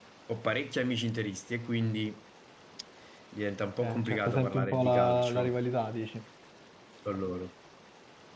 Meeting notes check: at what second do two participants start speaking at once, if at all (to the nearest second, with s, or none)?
4 s